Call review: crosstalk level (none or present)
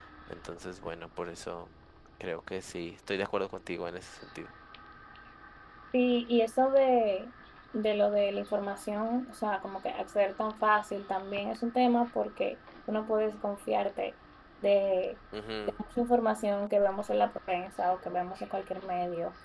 none